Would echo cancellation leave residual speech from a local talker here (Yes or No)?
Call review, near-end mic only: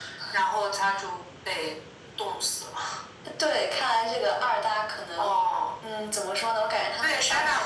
No